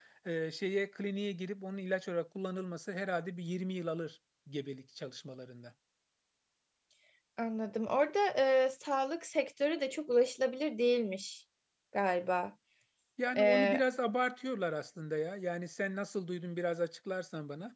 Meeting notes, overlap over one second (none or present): none